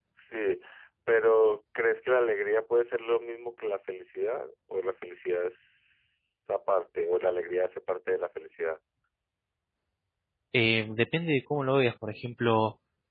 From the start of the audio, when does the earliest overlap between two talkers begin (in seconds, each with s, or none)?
none